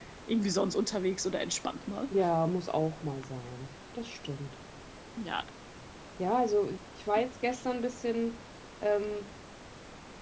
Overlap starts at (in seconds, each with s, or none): none